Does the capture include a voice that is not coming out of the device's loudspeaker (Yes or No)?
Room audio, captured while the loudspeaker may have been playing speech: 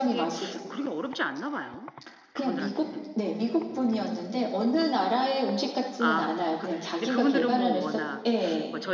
Yes